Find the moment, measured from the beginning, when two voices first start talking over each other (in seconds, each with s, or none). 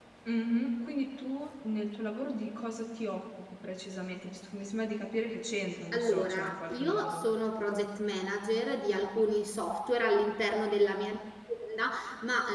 5.9 s